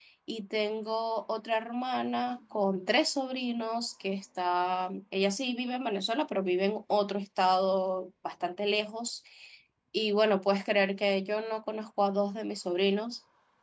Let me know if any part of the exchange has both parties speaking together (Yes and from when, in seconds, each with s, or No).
No